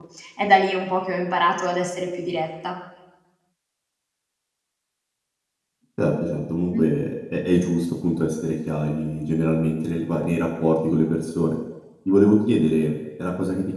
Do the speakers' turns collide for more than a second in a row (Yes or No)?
No